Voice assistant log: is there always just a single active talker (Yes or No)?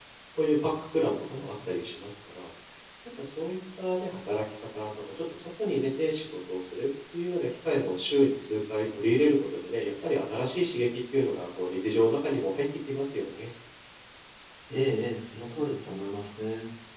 Yes